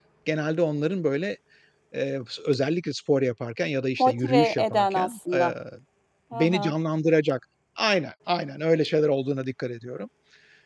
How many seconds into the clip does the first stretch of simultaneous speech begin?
4.0 s

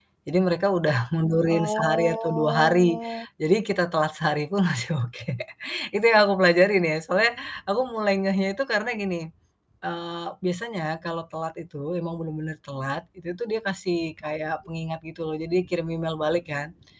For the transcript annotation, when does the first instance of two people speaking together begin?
1.4 s

